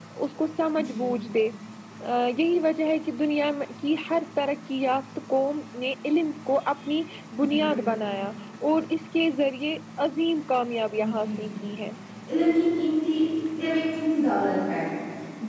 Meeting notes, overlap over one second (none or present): none